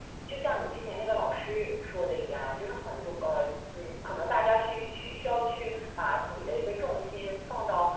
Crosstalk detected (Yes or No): No